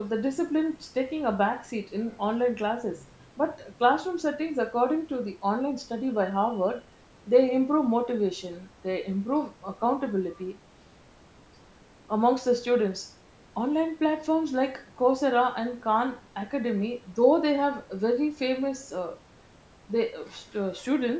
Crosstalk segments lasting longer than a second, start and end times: none

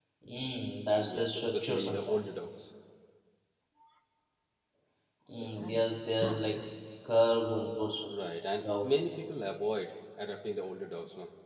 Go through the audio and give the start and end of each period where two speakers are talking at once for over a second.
1.0-2.2

